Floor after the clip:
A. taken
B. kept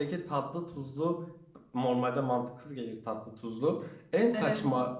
B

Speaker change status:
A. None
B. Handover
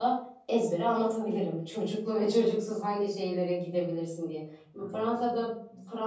A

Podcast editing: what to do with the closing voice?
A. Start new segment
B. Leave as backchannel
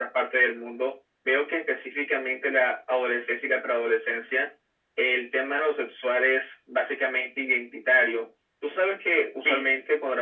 B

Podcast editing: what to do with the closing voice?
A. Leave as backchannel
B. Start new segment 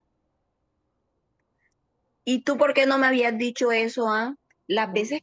A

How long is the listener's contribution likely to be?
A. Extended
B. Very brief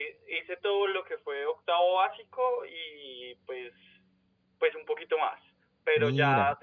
B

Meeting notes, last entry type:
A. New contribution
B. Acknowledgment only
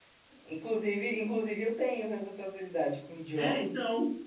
A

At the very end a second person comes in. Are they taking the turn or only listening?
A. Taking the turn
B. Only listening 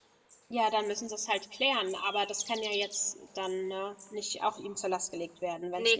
A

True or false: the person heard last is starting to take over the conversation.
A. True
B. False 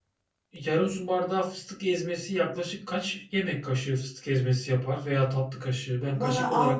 A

